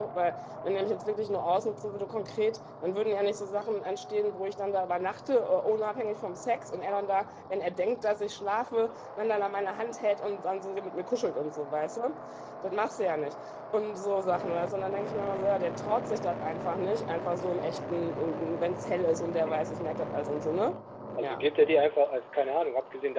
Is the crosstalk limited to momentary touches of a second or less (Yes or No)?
Yes